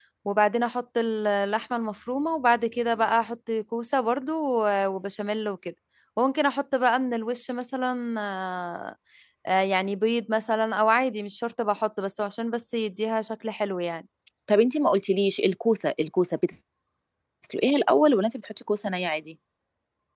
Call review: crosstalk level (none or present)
none